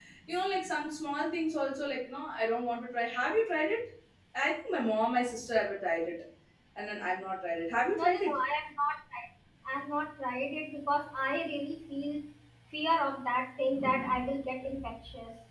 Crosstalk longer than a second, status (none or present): none